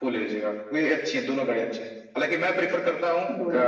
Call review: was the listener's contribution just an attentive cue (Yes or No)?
Yes